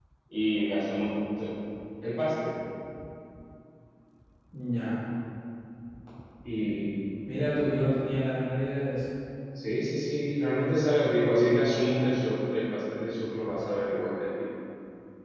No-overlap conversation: Yes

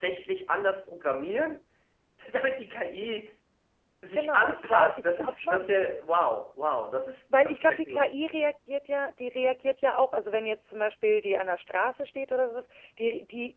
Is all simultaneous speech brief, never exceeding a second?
No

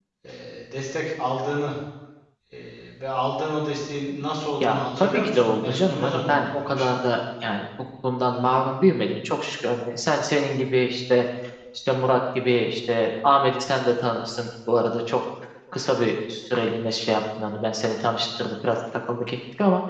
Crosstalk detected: Yes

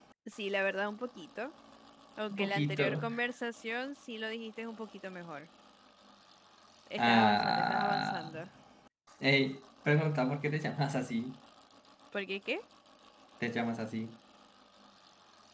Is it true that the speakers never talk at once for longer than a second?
No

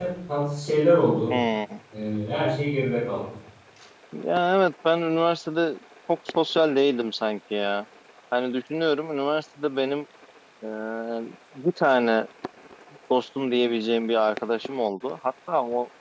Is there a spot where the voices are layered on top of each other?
No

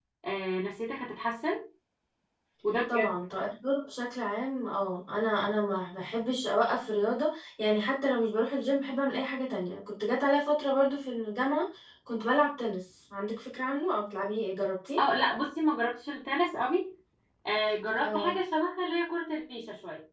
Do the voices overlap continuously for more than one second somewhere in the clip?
No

